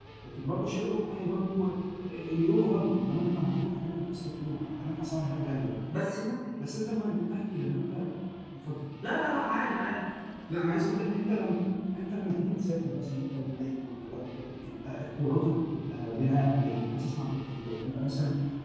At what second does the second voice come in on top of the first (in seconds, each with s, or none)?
none